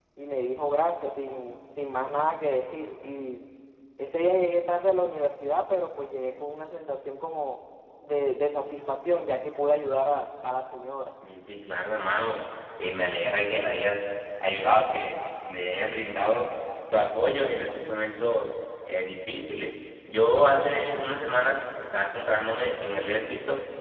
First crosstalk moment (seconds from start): none

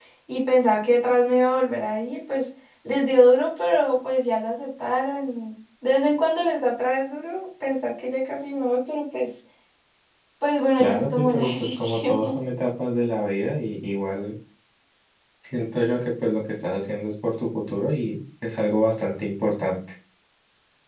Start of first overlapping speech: 10.8 s

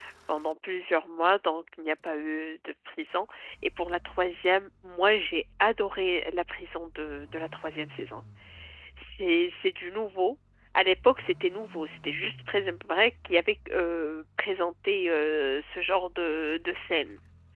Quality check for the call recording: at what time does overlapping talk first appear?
none

